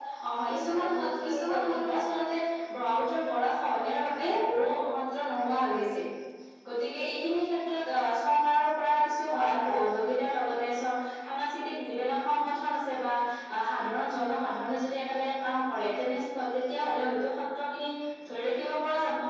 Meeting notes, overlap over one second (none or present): present